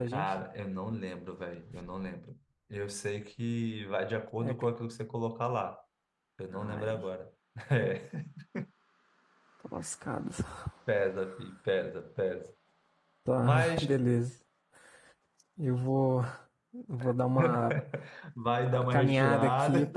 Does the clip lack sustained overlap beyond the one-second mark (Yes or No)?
No